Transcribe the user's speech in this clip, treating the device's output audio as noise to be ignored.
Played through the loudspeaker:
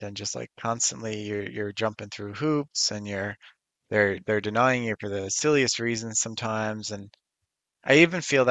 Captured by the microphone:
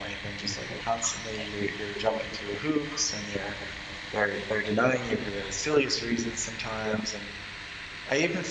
none

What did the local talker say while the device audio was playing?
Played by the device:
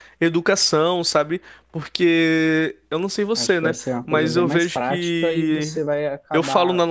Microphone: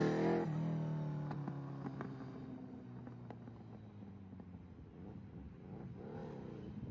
none

